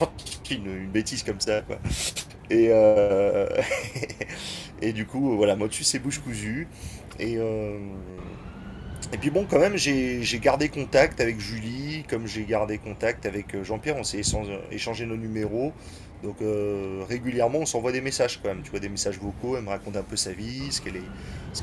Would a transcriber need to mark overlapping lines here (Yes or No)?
No